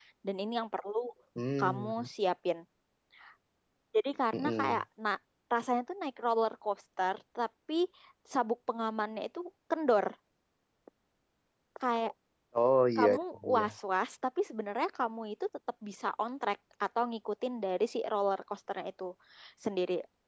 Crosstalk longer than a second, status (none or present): none